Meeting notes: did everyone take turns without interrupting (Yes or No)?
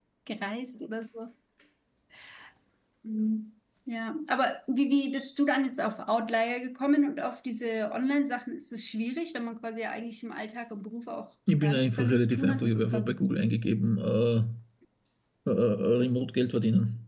No